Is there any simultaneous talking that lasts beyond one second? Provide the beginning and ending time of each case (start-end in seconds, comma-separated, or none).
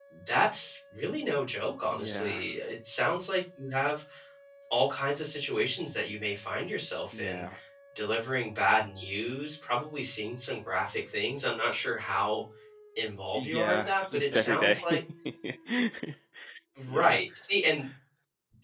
13.3-14.8